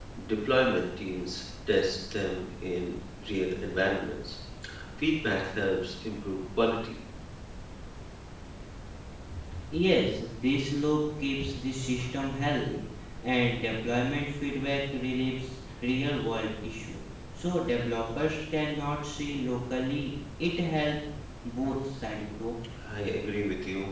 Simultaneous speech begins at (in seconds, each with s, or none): none